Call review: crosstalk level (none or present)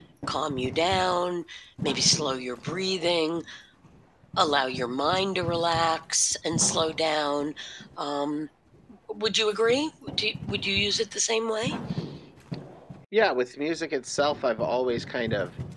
none